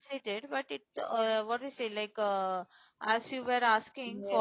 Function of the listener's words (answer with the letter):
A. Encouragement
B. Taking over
B